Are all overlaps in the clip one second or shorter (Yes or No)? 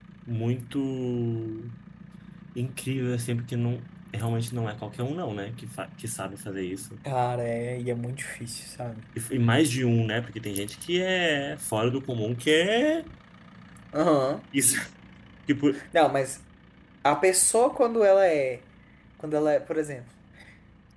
Yes